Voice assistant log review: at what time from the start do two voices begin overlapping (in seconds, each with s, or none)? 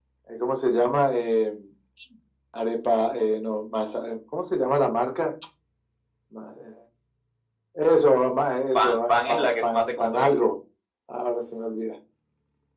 8.8 s